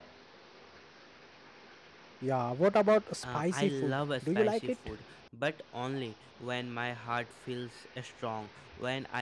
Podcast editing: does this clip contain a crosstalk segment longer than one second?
Yes, from 3.2 s

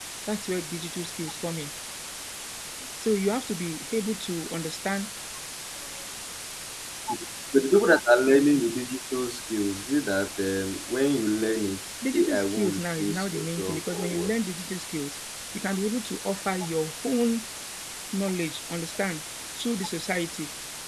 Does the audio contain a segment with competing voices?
Yes, from 12.0 s

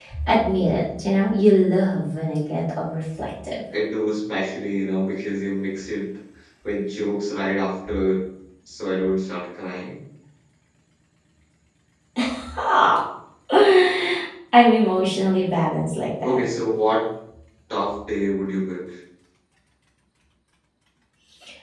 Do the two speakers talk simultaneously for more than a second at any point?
No

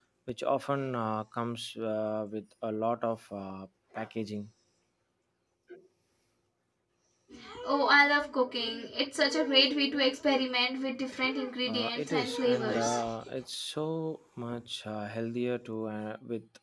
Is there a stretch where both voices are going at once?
Yes, from 11.6 s

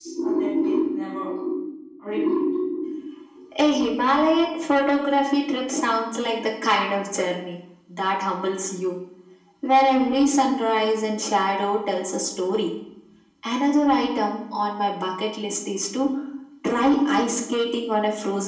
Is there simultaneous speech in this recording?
No

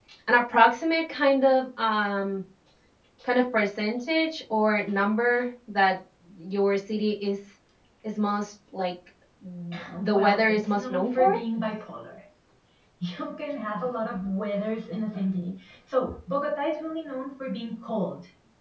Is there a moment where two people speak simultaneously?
Yes, from 10.0 s

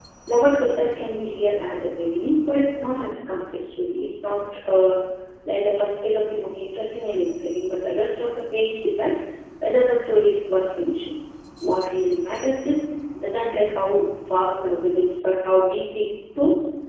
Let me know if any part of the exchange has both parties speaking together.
No

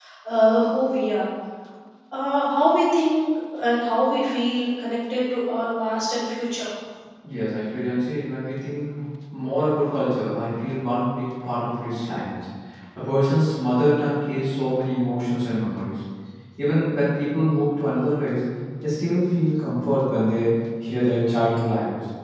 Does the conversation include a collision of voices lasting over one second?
No

